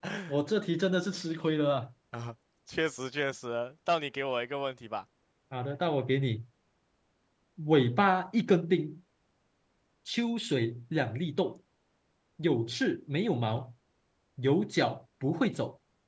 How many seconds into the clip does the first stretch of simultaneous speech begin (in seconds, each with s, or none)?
none